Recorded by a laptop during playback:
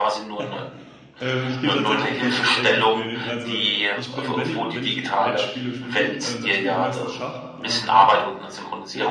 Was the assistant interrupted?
Yes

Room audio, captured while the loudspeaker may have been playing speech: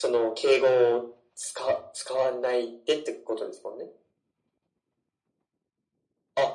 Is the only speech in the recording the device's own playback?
Yes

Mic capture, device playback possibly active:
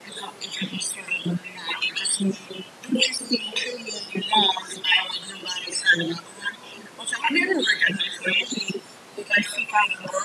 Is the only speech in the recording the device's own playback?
Yes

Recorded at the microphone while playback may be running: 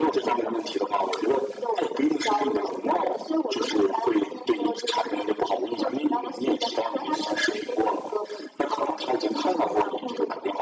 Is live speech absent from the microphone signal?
Yes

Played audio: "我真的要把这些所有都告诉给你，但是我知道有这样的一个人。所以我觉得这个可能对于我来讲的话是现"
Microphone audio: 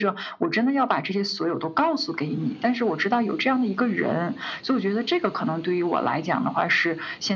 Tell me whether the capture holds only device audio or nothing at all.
Yes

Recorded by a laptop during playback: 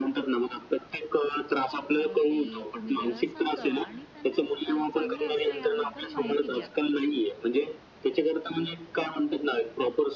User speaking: Yes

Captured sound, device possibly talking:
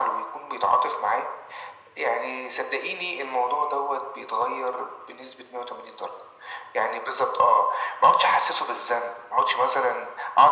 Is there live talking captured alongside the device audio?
No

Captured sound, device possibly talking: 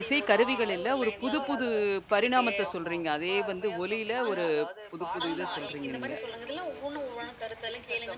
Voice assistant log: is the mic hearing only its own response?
No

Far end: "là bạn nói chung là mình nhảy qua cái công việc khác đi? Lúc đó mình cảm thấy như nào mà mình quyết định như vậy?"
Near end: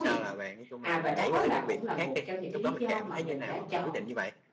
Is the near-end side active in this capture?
Yes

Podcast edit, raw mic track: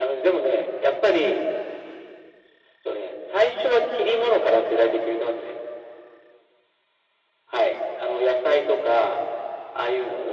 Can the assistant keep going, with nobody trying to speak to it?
Yes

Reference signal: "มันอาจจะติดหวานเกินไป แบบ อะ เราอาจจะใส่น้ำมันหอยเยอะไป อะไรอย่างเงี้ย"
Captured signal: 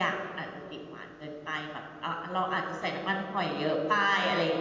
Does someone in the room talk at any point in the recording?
No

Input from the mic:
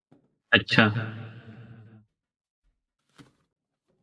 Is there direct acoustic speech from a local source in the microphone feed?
Yes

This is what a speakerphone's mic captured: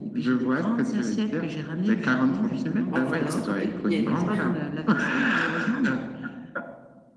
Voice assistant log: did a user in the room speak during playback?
Yes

